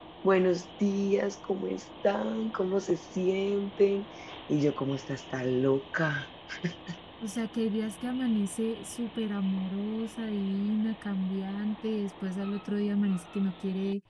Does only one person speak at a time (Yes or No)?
Yes